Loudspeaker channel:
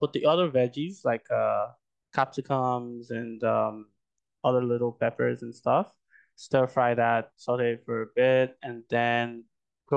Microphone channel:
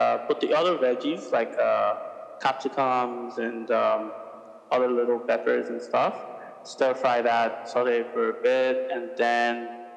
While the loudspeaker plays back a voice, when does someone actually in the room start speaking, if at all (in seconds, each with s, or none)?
none